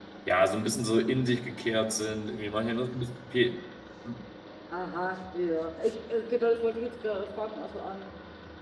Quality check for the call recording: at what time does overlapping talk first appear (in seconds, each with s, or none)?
none